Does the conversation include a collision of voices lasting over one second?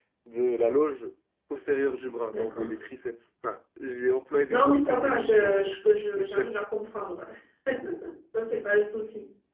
Yes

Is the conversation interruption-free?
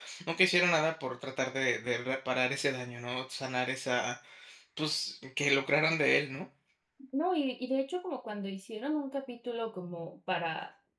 Yes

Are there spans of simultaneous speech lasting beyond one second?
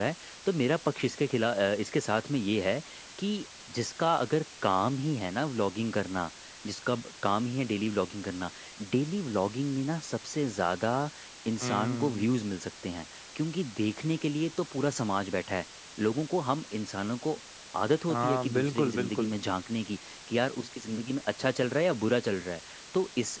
Yes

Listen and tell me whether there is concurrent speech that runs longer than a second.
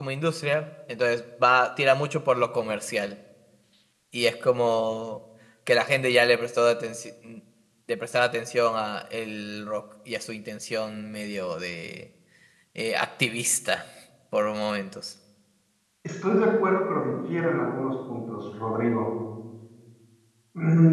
No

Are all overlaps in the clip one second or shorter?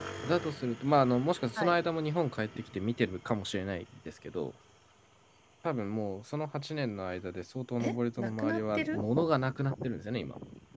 No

